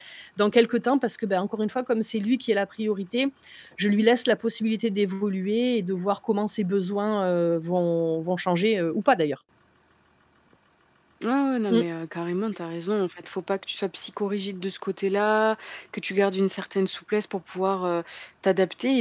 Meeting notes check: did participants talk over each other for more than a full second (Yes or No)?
No